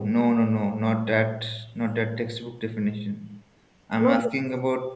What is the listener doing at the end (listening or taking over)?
listening